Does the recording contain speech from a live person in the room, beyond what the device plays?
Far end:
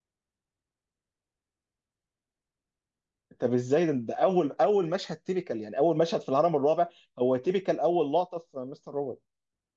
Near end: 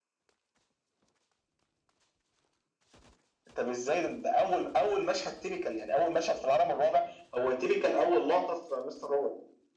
No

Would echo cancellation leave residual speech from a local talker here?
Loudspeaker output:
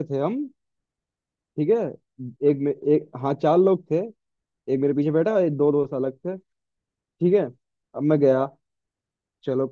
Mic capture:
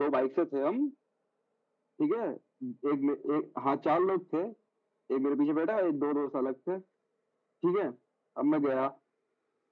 No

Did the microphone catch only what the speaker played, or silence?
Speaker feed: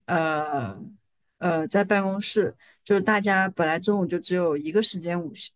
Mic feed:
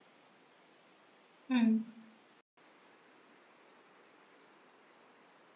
No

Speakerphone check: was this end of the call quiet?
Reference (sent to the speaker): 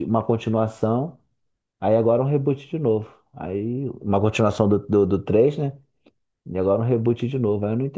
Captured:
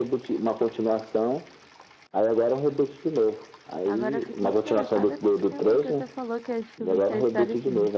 No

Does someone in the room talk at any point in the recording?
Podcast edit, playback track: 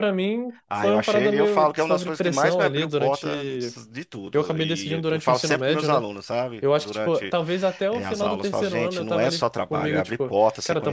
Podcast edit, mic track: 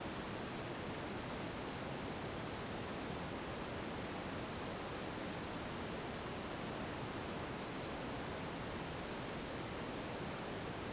No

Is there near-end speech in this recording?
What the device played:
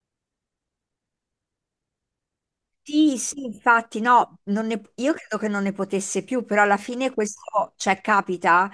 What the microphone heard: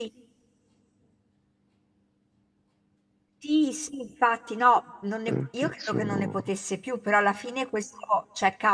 Yes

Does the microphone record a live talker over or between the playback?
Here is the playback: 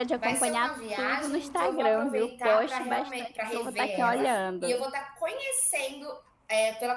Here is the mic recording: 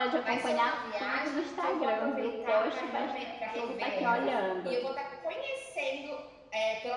No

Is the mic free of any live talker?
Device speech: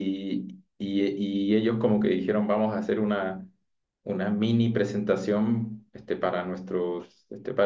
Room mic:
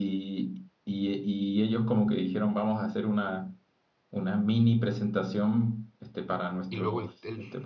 No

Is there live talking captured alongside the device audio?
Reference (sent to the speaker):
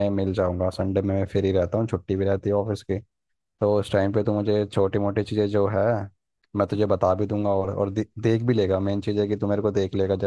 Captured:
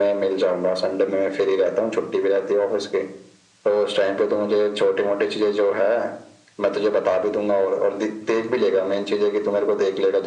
No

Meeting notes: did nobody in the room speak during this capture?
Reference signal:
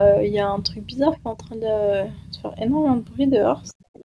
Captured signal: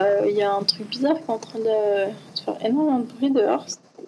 Yes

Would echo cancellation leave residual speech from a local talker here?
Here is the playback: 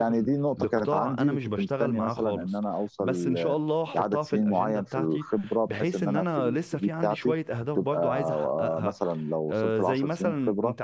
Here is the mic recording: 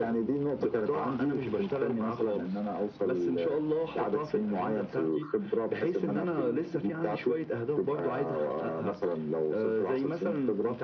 No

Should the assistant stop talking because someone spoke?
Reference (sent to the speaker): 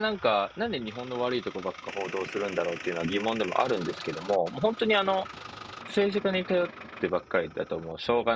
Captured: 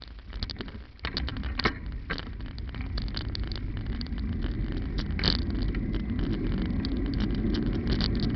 No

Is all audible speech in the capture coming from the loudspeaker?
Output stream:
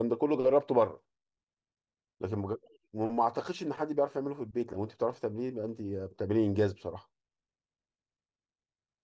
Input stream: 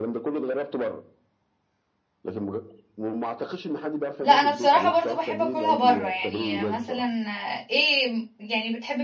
No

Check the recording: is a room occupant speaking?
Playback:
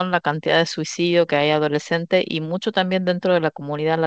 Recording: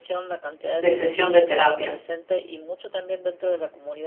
Yes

